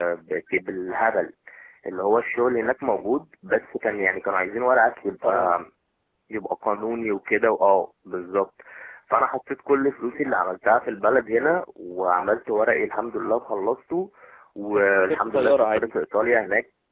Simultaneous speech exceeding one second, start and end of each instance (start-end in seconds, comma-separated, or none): 14.7-15.9